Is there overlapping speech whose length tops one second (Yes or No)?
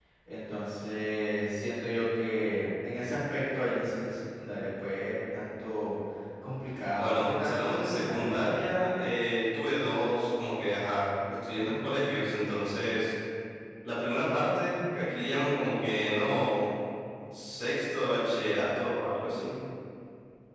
Yes